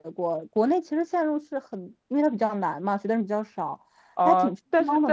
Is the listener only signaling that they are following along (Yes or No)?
No